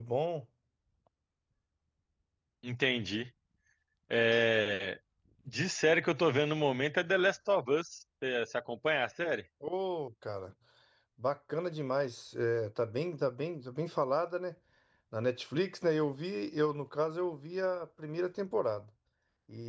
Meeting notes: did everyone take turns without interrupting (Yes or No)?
Yes